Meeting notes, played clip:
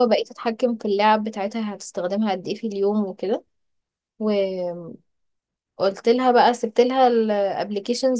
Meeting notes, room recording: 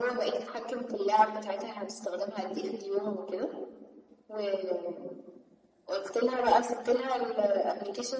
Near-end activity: none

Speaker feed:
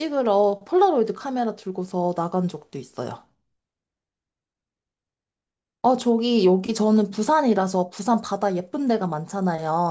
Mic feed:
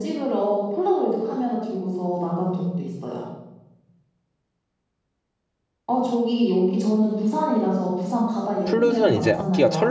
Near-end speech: present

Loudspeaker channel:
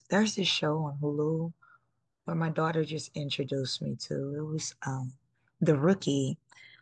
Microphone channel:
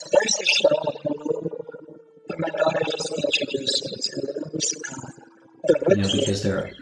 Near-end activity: present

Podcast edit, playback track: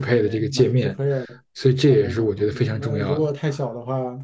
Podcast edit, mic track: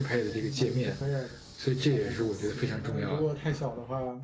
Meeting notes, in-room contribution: none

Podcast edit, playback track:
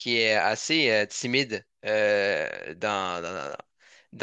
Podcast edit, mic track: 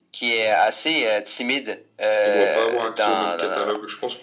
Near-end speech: present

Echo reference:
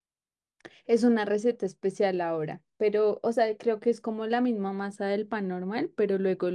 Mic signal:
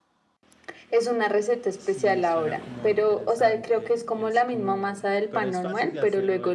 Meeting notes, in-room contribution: present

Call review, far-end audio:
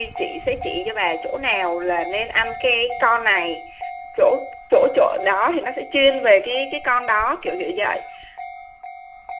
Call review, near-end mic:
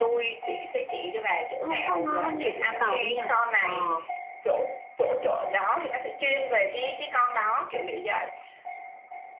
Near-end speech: present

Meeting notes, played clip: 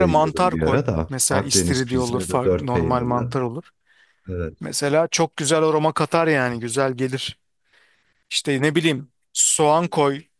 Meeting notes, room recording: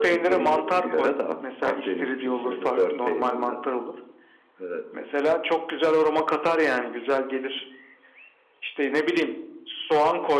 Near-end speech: none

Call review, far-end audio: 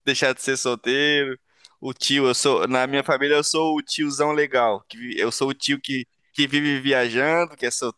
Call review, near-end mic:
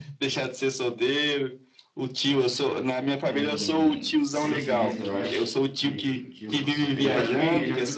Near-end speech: present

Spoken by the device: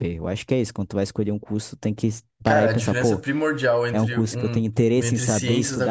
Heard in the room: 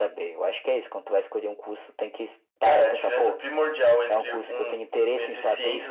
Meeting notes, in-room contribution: none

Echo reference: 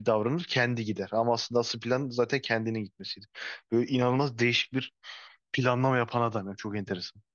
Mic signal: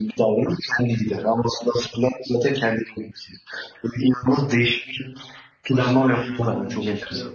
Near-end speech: present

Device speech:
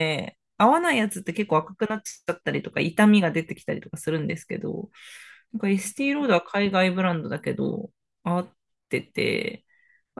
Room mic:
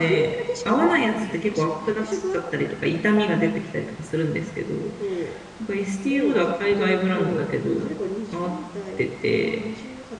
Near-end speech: present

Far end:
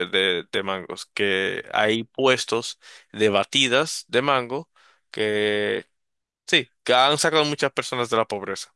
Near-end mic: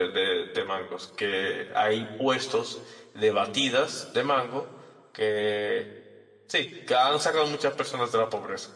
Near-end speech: none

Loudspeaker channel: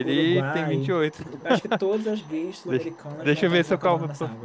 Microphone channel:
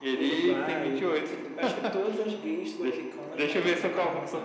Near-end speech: none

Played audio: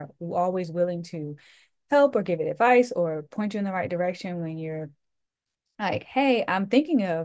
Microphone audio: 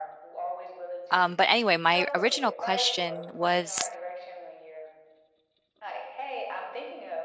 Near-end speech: present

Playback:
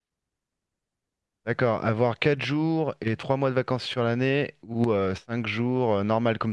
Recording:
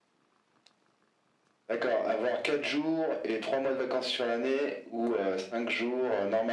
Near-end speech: none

